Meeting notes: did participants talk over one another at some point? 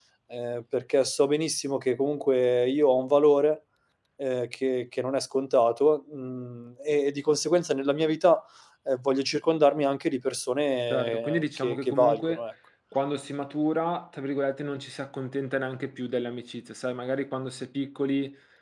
Yes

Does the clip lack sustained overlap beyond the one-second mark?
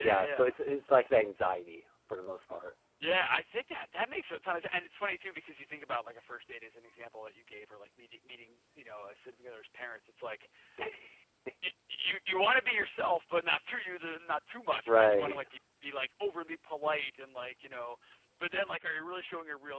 Yes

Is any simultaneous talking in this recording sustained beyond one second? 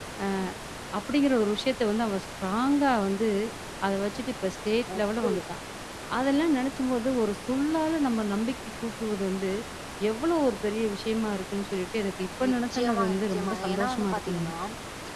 Yes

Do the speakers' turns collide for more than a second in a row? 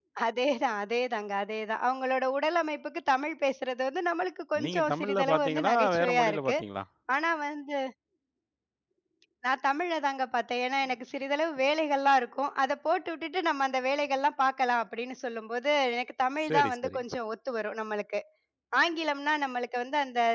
Yes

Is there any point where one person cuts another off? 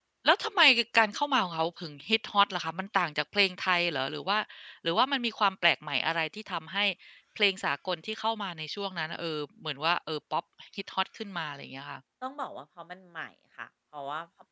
No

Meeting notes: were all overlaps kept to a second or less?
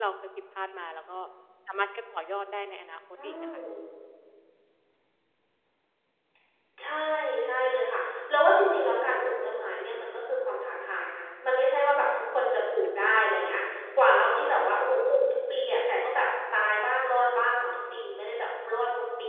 Yes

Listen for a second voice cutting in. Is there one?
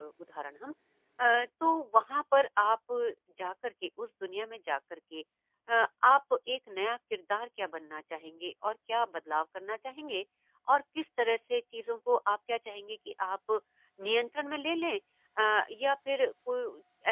No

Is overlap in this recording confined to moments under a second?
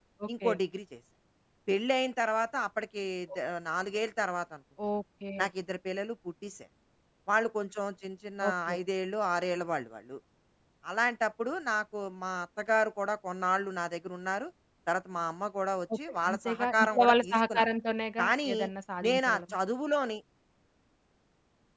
No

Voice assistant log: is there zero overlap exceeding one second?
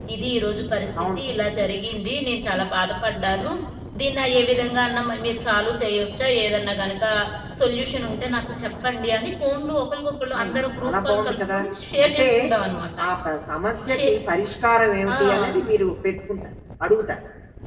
No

